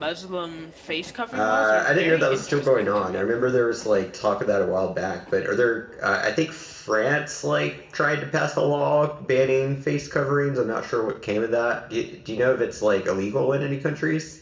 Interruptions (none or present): present